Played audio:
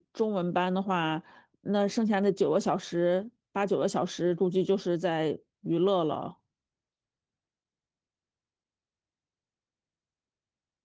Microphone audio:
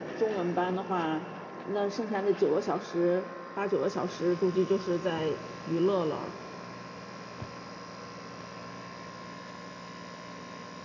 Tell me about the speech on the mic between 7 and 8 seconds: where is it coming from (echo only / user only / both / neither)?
neither